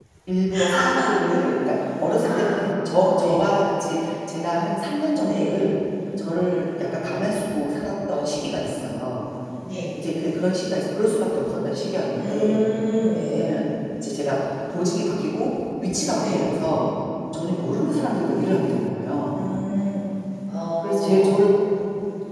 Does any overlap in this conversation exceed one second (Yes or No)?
No